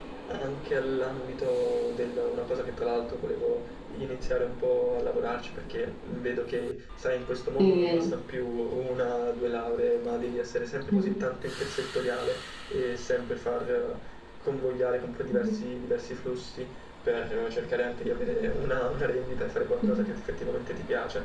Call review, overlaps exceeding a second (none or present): none